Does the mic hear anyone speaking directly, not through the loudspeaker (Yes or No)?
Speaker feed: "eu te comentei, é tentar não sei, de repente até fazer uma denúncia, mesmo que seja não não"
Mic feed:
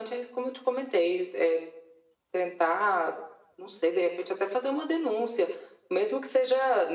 No